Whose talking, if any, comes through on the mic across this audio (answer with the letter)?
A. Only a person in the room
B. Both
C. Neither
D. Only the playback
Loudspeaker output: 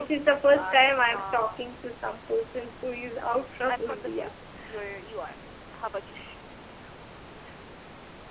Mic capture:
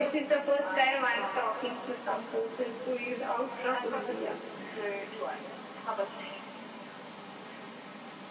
D